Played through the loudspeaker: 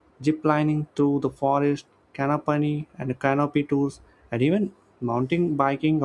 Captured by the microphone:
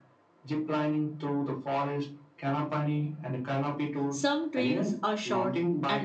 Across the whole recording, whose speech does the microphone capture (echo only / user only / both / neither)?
both